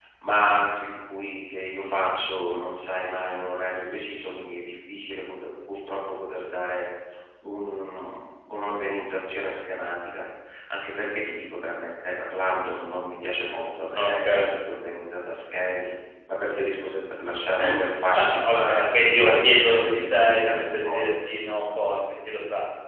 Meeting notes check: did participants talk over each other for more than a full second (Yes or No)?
Yes